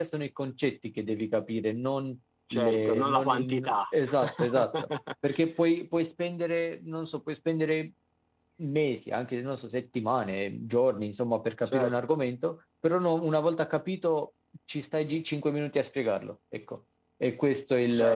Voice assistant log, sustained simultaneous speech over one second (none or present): present